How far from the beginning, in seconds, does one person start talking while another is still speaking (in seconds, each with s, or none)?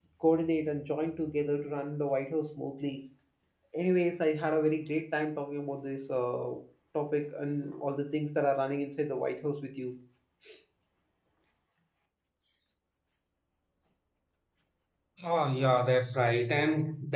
none